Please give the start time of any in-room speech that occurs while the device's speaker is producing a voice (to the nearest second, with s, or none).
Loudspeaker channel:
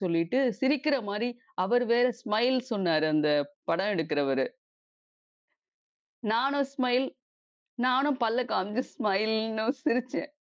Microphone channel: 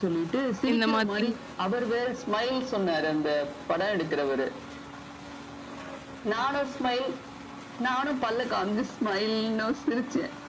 1 s